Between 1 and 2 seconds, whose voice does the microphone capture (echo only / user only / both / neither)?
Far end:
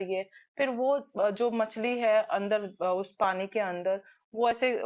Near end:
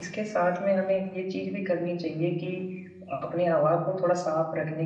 user only